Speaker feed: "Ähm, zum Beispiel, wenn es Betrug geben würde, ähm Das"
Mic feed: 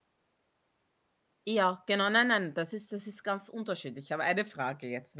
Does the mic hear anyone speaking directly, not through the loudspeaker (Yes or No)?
Yes